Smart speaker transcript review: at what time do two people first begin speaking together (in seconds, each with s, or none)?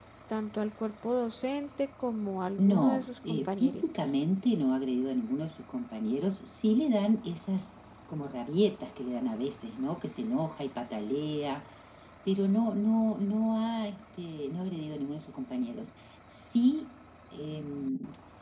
2.6 s